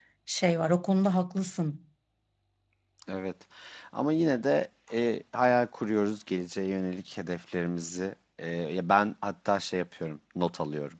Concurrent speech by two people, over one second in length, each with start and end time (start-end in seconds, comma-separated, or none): none